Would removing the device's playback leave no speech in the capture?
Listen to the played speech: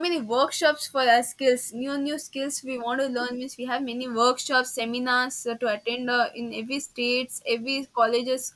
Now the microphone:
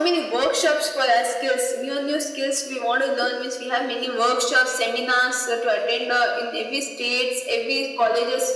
Yes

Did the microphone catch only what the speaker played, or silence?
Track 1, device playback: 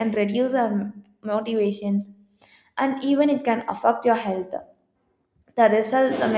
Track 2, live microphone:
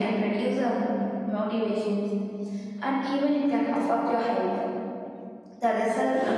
Yes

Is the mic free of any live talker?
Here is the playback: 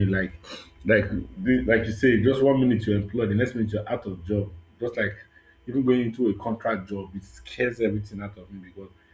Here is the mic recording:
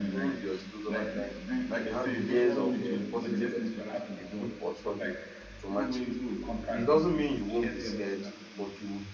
No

